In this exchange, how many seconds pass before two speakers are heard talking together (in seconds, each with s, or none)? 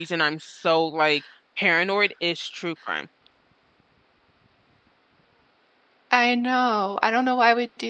none